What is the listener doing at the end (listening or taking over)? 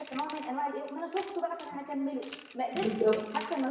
listening